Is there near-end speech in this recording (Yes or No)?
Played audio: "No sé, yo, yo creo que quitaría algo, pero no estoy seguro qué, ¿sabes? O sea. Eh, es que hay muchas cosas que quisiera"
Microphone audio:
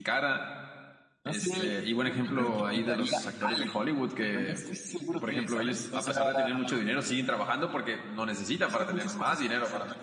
Yes